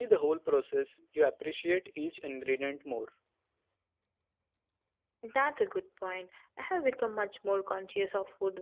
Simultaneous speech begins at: none

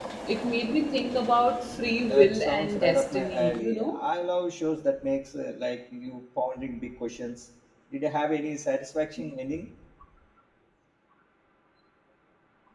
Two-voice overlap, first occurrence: 2.0 s

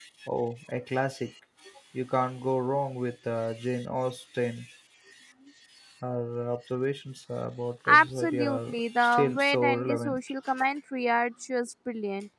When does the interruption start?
7.8 s

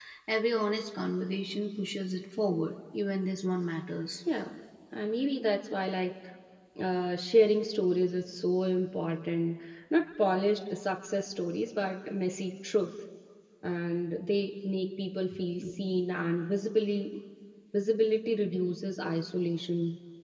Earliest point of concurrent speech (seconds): none

